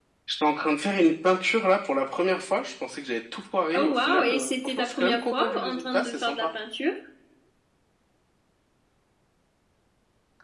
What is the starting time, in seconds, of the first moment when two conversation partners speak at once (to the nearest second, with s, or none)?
4 s